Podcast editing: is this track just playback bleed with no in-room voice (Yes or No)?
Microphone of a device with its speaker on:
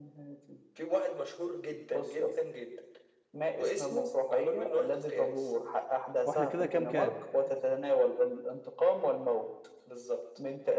No